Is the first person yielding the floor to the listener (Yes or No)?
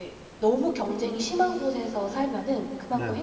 No